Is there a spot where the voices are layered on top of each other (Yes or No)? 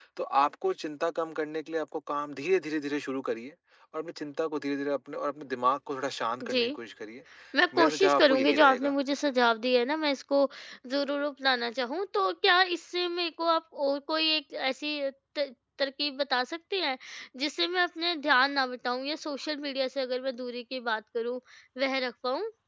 Yes